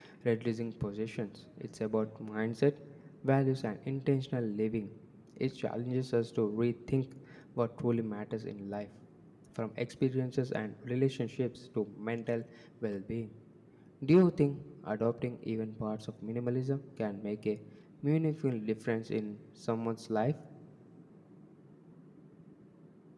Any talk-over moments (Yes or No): No